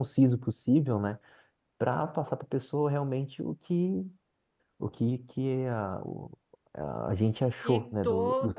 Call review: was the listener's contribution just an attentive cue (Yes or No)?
No